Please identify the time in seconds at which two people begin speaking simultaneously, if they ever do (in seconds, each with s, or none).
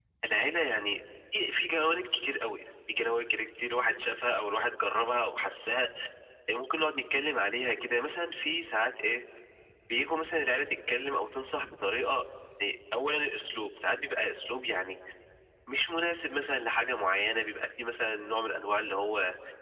none